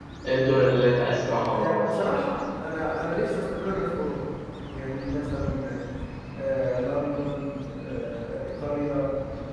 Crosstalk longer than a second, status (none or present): none